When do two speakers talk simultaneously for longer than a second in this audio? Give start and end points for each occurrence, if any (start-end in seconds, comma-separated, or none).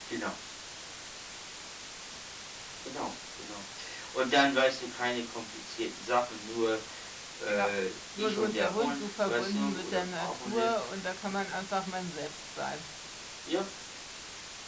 8.2-10.7